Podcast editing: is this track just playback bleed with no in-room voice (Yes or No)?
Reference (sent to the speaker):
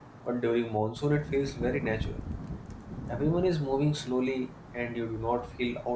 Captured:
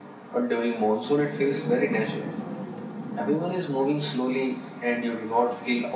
No